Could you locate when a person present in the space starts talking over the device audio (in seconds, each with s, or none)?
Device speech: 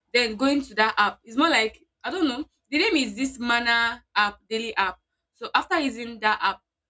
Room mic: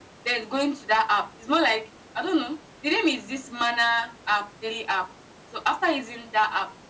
none